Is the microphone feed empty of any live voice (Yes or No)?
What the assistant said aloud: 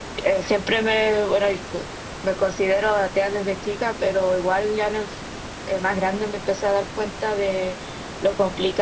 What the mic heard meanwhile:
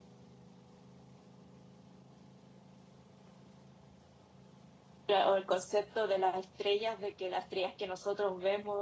No